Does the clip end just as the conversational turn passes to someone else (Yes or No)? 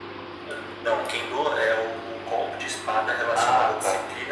No